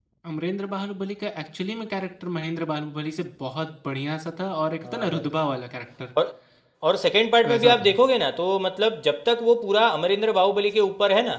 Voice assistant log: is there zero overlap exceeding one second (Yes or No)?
Yes